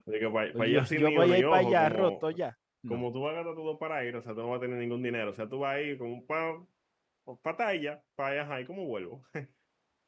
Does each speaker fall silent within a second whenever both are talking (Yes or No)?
No